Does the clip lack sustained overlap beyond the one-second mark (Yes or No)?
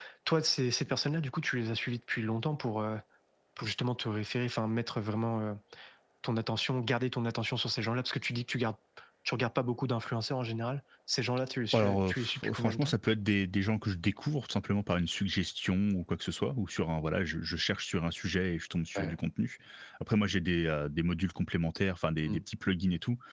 No